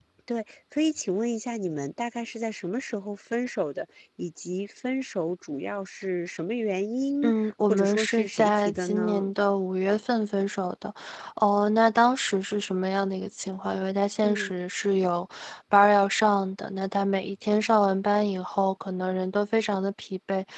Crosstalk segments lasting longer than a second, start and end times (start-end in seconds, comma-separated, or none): 7.2-9.2